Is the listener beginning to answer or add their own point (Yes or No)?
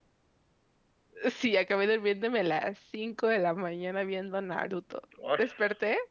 No